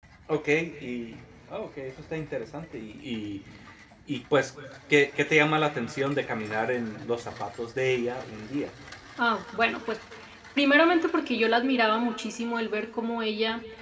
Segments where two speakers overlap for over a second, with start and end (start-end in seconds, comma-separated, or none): none